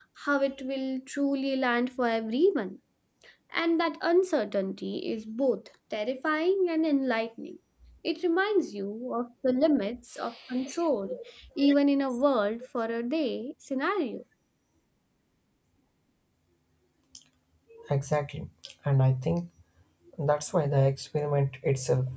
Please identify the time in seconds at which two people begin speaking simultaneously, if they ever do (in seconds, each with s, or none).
none